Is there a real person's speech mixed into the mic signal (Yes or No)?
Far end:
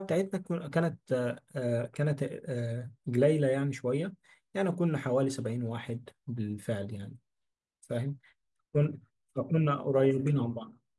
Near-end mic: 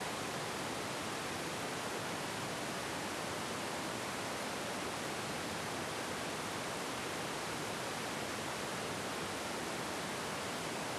No